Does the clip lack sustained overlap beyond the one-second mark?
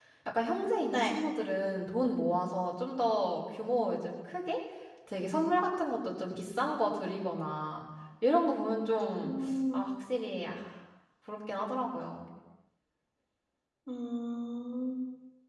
Yes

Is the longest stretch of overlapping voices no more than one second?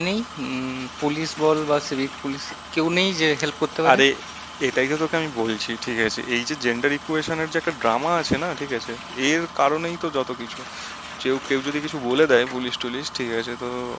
Yes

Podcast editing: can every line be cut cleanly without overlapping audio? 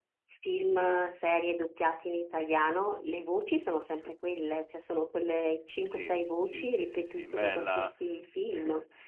No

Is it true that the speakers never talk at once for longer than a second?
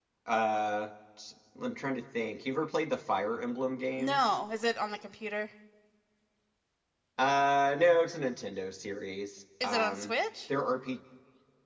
Yes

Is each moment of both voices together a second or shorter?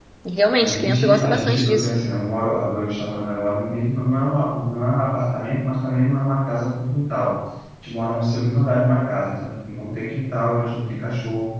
No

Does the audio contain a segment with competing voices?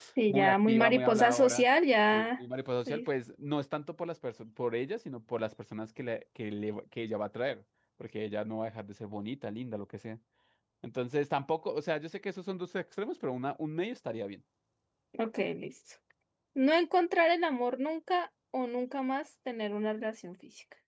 Yes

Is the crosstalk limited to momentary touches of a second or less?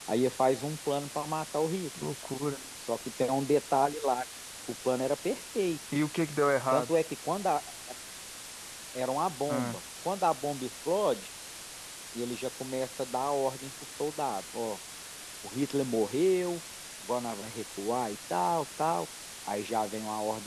Yes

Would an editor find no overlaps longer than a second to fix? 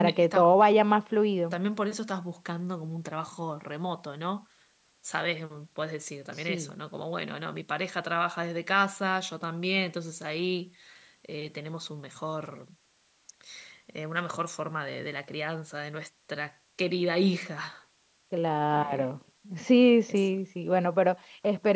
Yes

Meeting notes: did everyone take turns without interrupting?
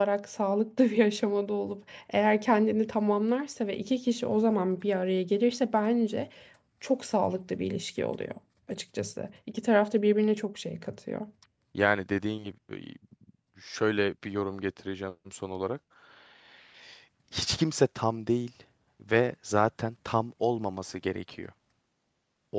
Yes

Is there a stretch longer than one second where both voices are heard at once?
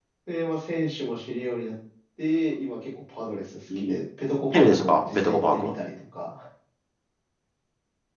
Yes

